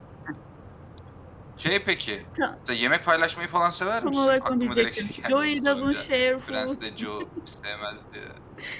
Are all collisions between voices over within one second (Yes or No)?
No